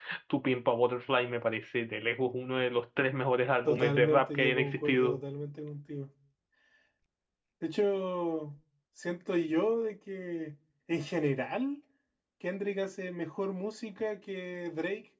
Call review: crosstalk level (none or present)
present